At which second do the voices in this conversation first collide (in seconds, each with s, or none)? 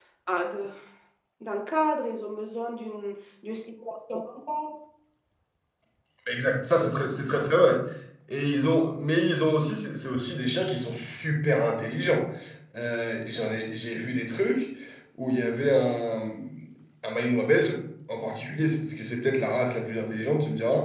none